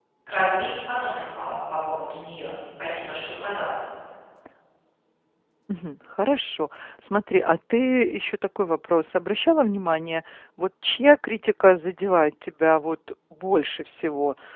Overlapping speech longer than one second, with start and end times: none

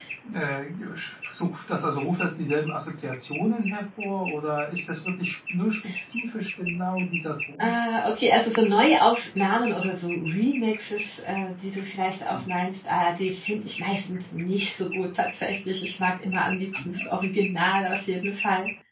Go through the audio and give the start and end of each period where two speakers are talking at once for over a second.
none

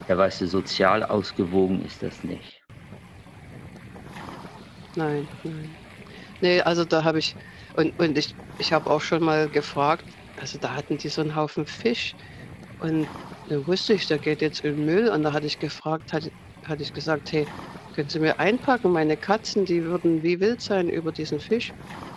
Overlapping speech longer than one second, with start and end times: none

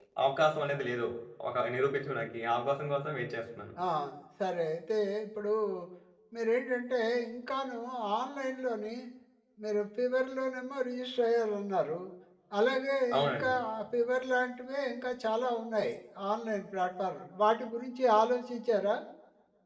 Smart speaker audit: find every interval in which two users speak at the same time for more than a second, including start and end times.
none

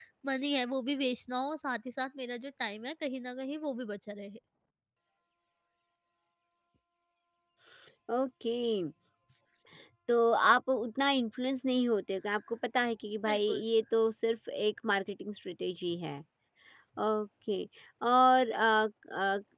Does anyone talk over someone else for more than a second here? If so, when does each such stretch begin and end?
none

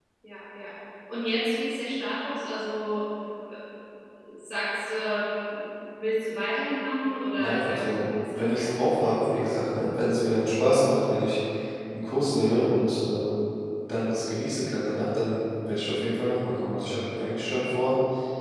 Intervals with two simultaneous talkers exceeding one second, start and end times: 7.4-9.5

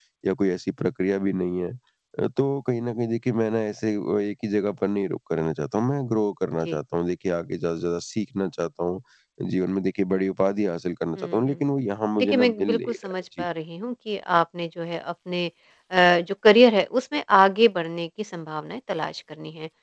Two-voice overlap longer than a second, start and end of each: 12.2-13.4

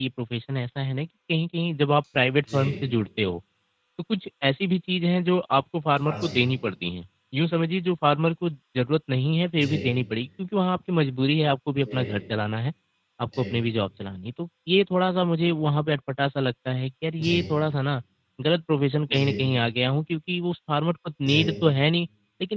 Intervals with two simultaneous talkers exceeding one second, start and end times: none

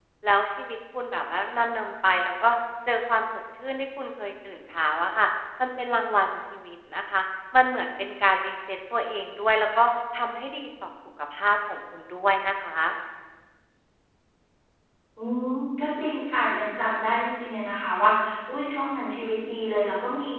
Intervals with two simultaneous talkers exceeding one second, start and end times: none

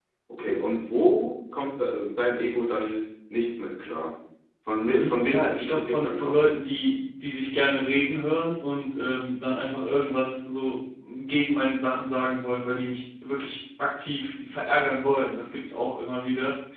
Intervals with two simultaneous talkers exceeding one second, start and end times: 4.9-6.4

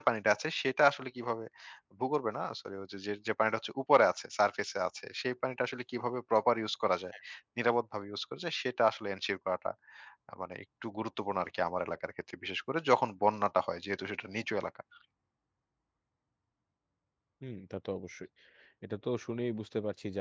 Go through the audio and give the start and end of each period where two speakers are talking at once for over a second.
none

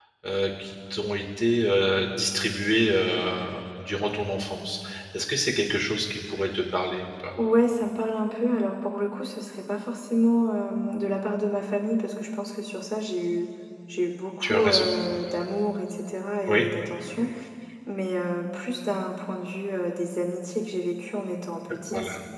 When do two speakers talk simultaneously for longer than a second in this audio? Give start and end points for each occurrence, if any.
none

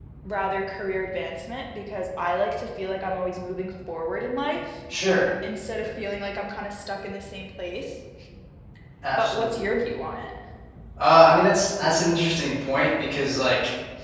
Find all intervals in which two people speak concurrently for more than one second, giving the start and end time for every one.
none

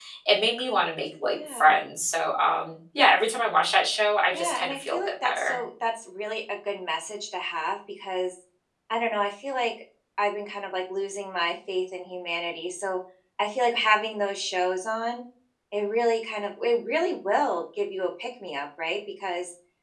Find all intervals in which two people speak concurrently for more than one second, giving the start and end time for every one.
4.3-5.6

